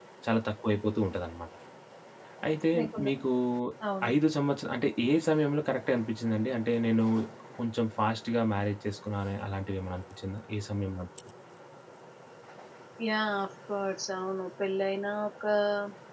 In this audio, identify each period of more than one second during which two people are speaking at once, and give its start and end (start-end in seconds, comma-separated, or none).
none